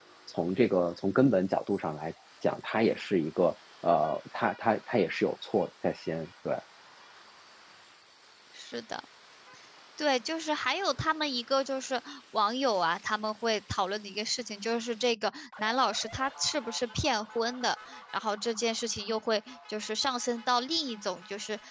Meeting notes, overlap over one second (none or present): none